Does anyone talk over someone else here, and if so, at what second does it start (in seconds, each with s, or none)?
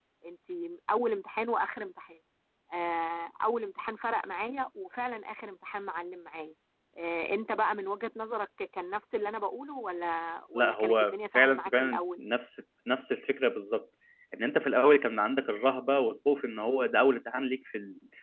10.6 s